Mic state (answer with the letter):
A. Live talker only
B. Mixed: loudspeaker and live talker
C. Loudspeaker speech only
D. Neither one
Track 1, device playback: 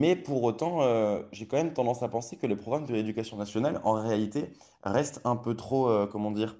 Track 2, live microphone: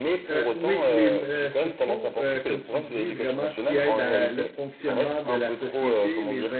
B